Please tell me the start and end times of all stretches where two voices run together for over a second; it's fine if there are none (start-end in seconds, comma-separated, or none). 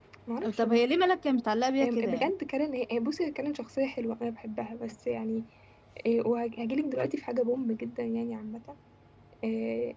none